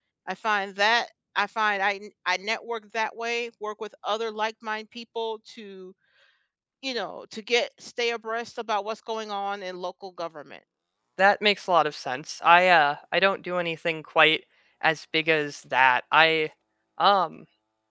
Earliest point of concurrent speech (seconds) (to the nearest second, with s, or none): none